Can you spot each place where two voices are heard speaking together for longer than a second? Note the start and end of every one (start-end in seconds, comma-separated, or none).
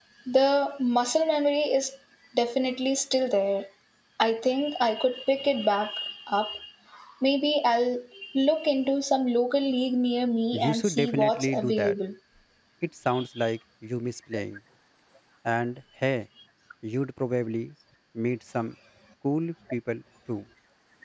10.5-11.9